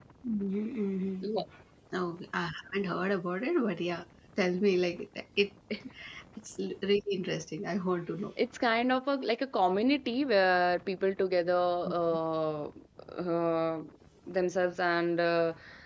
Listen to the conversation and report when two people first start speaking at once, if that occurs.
none

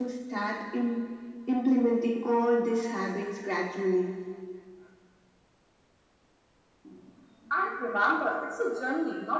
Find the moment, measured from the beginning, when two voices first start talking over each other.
none

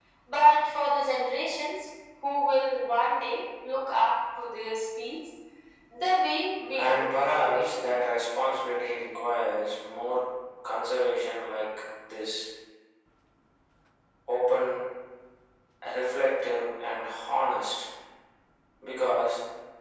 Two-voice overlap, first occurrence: 6.8 s

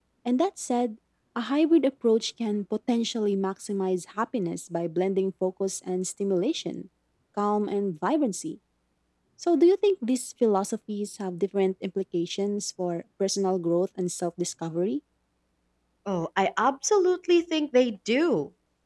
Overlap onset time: none

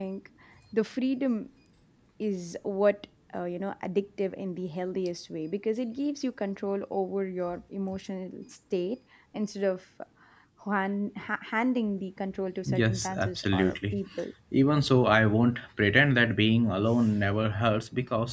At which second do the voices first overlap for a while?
12.6 s

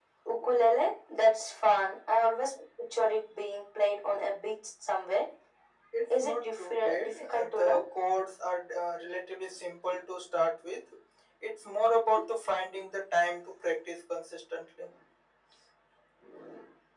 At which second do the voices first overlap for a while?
6.2 s

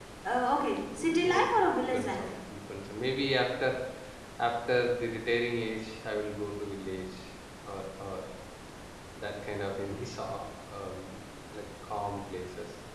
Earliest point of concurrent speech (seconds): 0.8 s

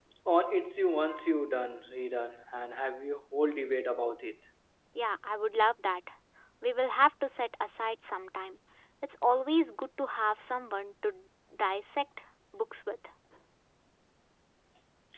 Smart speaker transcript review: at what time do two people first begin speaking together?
none

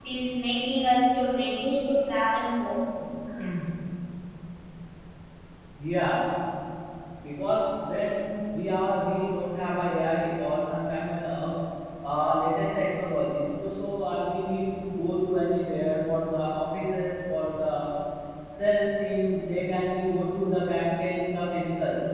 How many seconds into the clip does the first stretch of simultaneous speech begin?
none

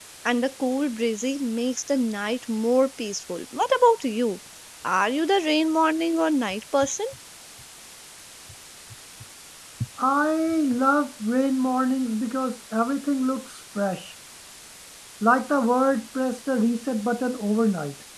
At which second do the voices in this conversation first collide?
none

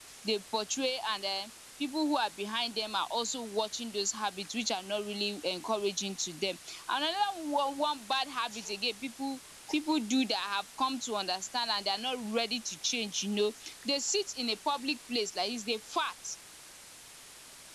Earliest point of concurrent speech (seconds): none

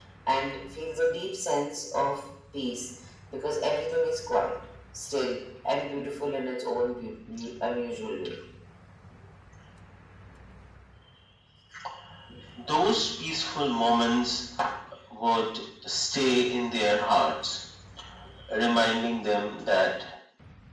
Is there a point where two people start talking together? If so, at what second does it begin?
none

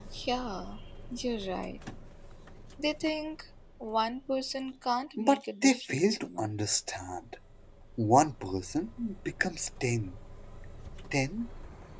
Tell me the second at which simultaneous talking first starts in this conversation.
5.2 s

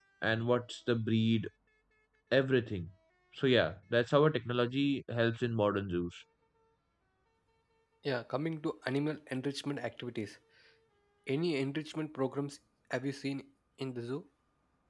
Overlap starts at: none

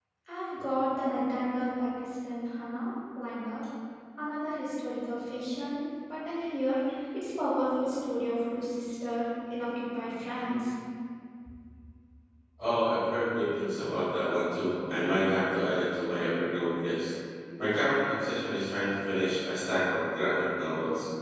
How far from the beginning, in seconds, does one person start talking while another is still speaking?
none

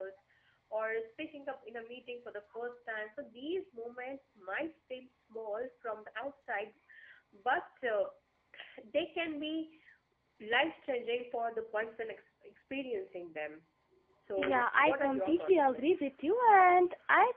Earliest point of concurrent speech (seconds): 14.4 s

